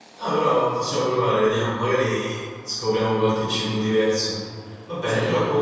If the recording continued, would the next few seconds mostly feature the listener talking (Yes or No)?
No